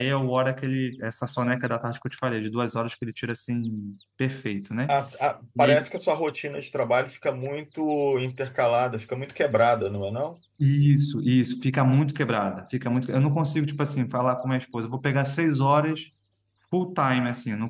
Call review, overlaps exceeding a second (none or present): none